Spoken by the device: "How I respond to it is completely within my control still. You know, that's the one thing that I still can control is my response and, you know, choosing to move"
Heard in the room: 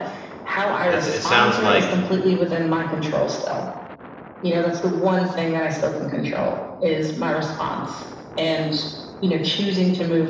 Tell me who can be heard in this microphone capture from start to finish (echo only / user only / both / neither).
both